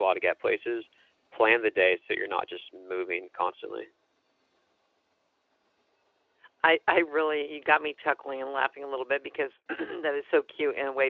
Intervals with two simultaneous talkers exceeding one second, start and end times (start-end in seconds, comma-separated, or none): none